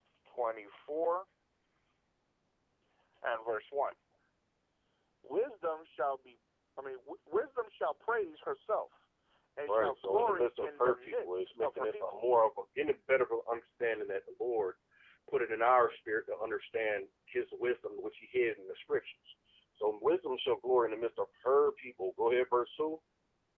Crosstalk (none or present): present